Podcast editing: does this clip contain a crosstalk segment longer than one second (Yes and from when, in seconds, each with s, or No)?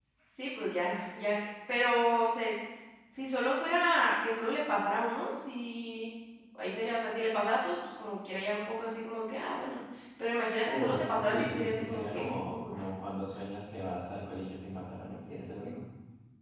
Yes, from 10.6 s